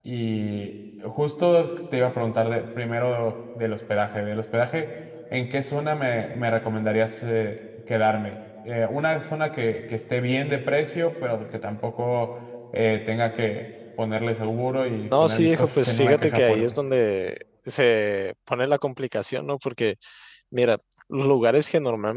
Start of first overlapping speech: 15.1 s

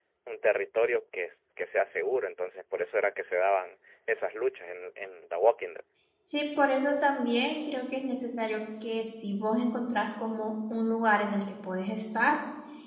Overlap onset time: none

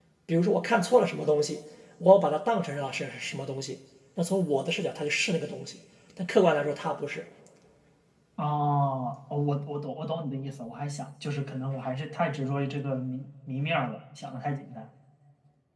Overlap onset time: none

